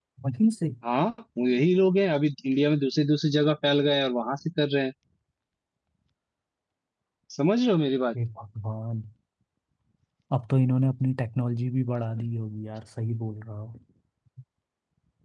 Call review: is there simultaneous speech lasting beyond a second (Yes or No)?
No